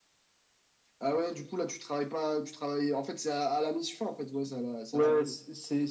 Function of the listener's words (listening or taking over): taking over